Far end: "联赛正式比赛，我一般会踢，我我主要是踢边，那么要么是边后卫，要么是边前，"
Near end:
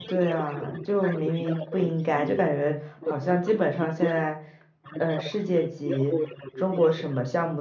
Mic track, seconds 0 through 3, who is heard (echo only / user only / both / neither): both